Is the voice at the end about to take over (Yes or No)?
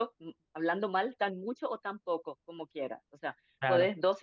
No